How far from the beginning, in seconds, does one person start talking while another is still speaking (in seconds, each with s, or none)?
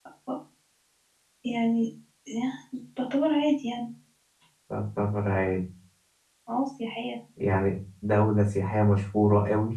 none